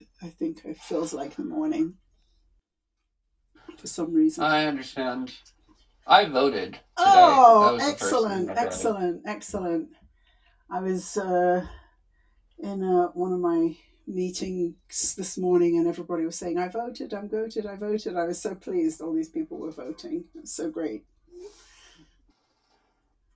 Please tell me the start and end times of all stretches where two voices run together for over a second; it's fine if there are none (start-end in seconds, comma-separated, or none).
7.0-8.9